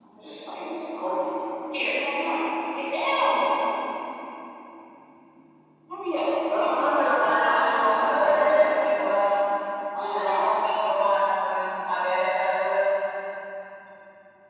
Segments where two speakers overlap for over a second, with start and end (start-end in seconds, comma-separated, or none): 7.4-8.7